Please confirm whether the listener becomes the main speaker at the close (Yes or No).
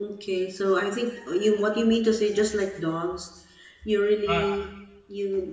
No